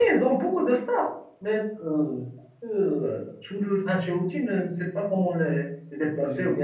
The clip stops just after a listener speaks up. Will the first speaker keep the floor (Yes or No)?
Yes